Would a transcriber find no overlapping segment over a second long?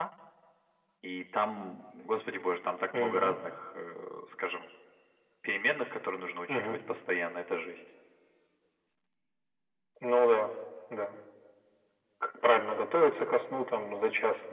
Yes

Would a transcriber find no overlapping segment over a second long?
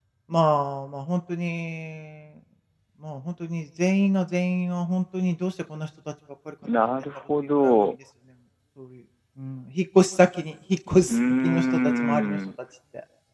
No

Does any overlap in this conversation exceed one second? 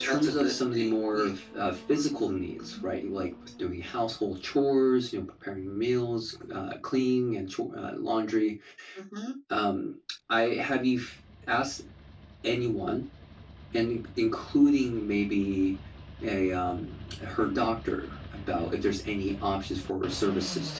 Yes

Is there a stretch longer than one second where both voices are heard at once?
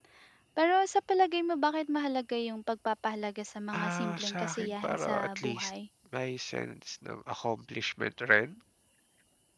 Yes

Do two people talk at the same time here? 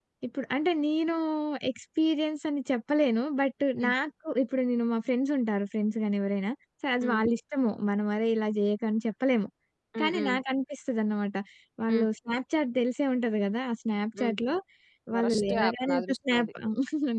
Yes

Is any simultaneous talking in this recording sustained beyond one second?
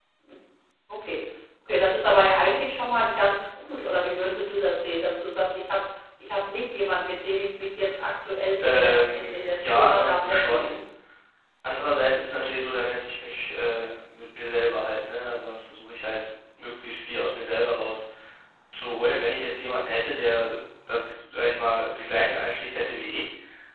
Yes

